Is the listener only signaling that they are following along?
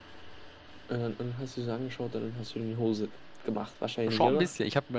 No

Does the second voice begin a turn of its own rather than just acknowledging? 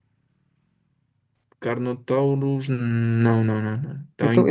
Yes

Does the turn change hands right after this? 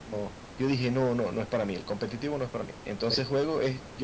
No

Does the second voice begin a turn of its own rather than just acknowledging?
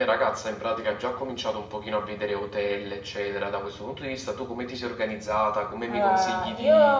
Yes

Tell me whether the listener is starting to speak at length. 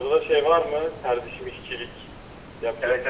Yes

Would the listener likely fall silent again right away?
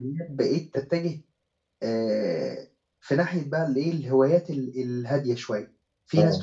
Yes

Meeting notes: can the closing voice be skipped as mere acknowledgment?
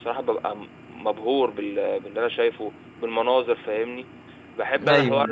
Yes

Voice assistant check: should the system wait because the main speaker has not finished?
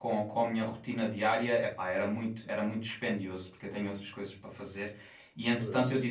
Yes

